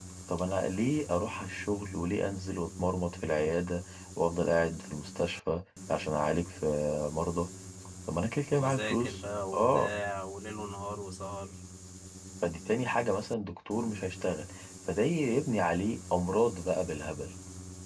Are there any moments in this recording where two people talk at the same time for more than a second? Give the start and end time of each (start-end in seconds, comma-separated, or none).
8.5-9.9